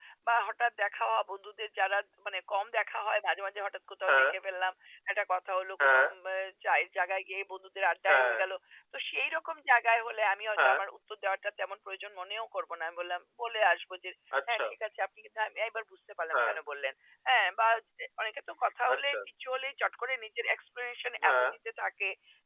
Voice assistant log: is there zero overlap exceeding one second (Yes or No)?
Yes